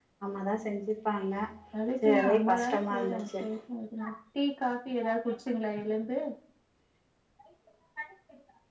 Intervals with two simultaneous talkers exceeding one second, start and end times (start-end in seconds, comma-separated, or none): 2.0-3.4